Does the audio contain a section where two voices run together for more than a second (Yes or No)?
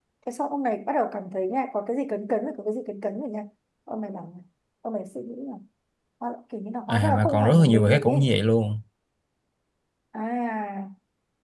Yes